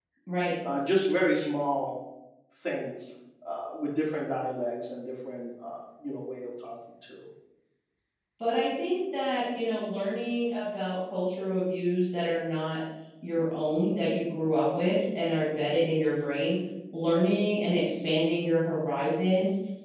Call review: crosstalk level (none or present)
none